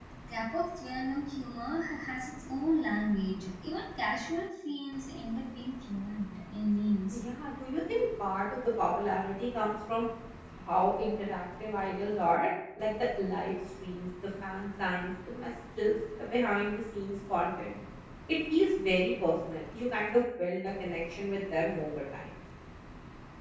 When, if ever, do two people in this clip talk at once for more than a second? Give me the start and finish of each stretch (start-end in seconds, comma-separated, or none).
none